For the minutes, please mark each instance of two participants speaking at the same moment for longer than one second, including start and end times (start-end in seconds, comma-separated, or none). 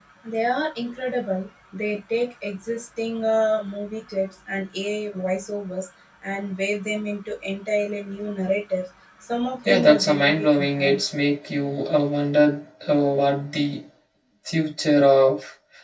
9.7-11.0